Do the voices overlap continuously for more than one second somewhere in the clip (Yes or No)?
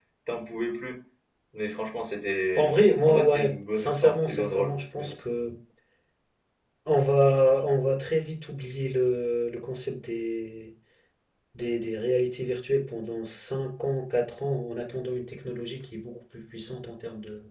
Yes